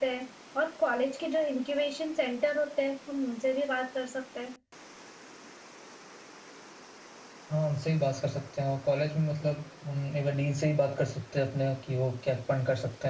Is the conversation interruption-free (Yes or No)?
Yes